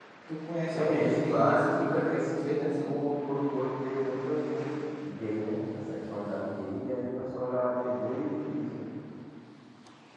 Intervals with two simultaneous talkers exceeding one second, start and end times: 0.7-2.9

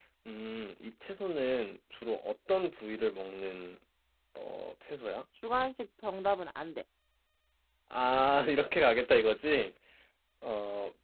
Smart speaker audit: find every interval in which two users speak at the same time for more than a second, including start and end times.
none

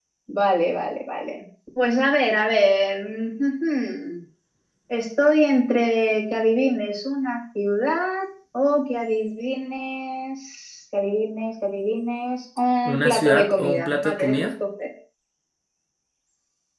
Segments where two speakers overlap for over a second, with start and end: 12.8-14.5

